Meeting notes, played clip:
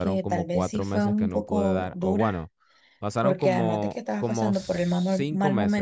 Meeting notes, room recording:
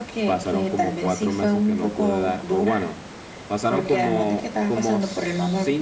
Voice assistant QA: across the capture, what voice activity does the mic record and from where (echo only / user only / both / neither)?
echo only